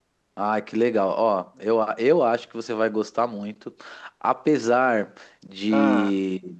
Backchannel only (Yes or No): Yes